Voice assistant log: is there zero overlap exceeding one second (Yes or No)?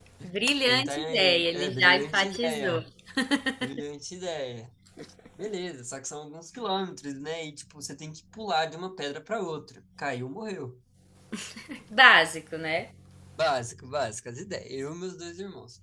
No